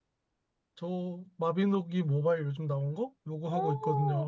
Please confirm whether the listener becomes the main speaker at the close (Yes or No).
Yes